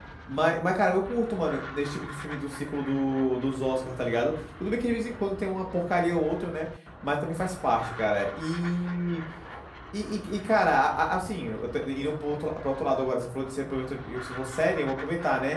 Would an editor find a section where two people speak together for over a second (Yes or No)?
No